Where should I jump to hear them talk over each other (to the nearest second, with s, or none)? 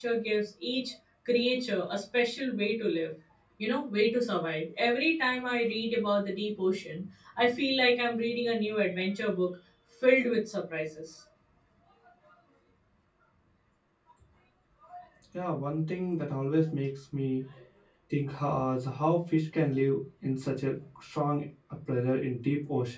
none